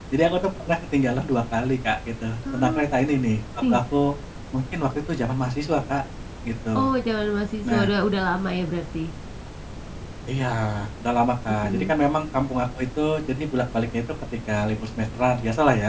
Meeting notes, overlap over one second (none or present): none